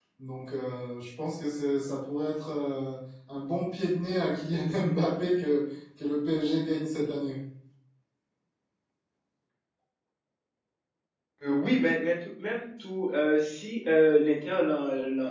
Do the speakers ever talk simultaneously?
No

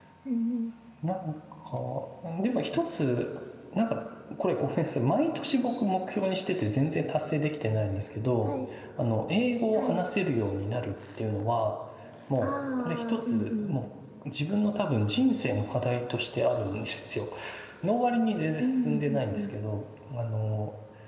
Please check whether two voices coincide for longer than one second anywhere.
Yes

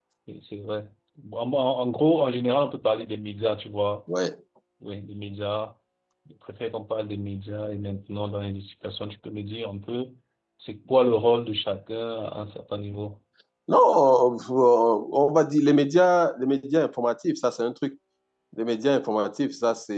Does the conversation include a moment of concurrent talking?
No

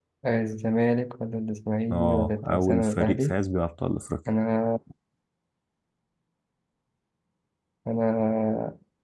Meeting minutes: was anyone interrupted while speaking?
Yes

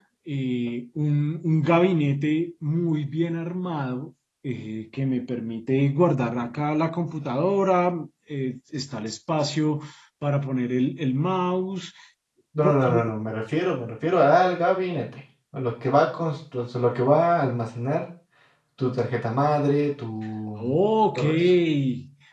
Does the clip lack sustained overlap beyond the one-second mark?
Yes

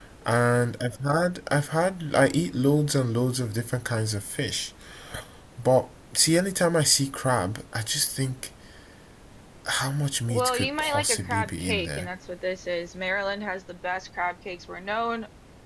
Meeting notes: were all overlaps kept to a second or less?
No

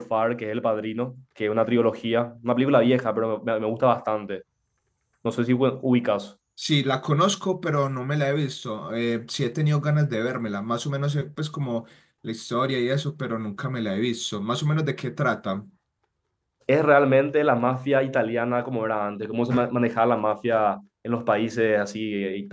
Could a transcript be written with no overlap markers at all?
Yes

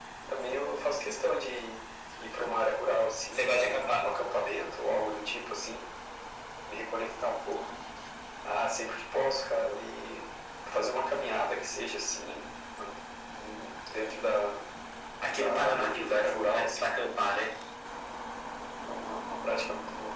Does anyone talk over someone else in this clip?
Yes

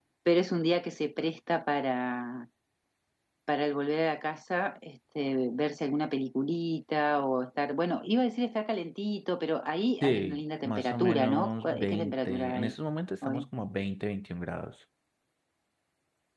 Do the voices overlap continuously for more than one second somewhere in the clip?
Yes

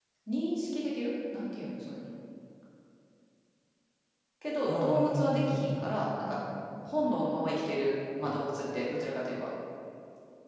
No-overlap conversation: No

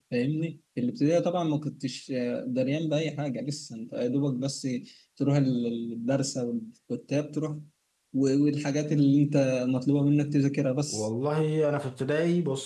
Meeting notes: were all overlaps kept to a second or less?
Yes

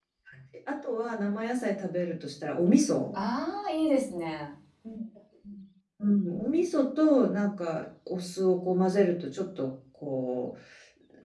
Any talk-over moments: No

